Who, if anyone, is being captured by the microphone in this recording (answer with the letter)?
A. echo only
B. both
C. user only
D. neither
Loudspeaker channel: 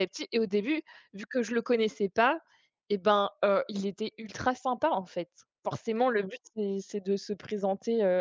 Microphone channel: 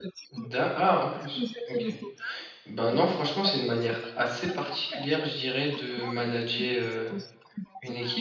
B